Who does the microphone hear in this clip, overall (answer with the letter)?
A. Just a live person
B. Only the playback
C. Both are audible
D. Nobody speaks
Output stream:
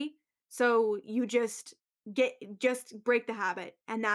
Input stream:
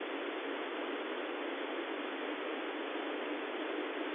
D